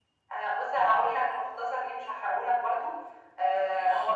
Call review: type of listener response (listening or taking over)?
listening